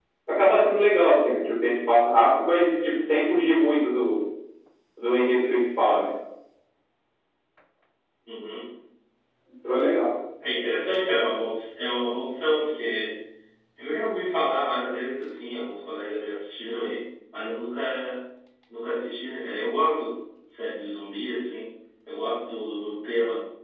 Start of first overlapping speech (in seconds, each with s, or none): none